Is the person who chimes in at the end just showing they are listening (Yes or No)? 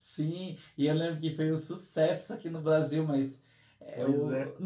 Yes